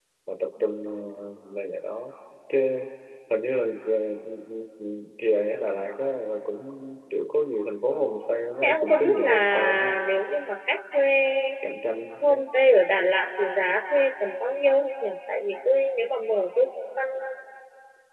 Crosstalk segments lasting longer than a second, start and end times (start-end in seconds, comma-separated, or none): 8.6-9.9